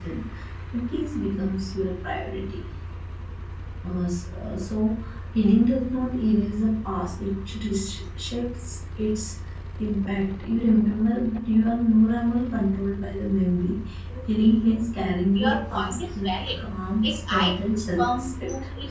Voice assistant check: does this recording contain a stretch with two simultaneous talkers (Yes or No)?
Yes